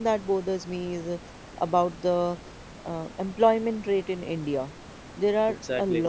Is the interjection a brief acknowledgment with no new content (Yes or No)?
Yes